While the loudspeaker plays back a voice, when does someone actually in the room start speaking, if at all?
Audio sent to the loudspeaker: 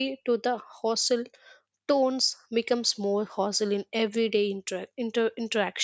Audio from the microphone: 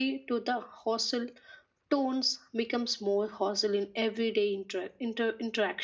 none

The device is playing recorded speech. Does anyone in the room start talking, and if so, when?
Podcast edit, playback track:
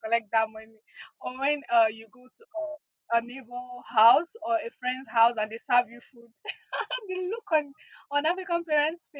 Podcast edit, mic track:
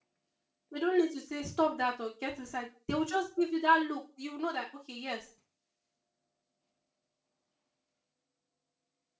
0.7 s

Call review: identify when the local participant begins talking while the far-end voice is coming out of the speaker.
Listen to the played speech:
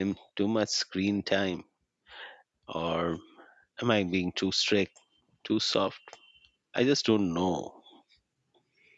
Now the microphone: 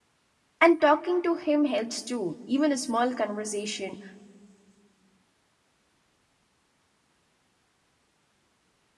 0.6 s

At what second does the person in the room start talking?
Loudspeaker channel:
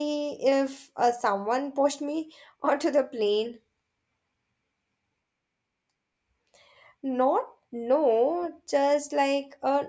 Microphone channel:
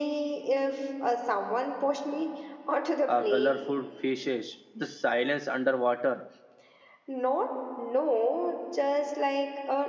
3.0 s

